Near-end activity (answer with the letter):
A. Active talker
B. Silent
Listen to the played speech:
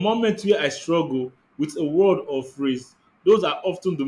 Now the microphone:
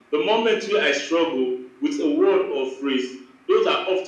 B